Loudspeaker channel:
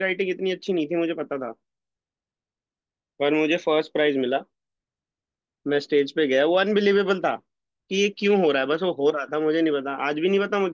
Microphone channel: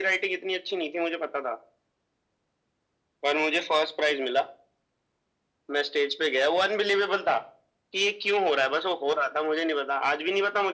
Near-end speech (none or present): none